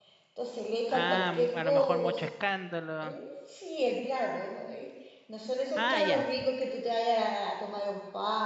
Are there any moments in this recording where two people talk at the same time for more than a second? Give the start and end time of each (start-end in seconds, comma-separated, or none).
0.9-2.3